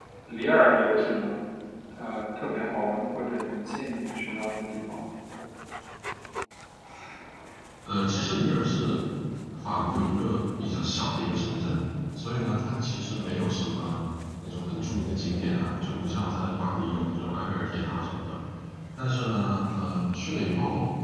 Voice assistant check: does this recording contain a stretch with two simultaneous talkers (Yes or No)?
No